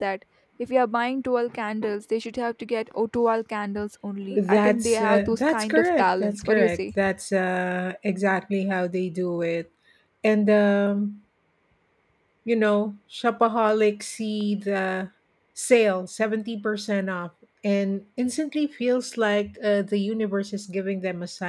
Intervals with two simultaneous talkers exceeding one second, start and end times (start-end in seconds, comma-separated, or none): 4.3-6.9